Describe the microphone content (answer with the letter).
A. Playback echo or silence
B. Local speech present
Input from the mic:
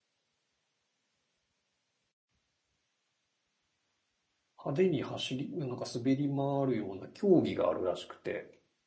B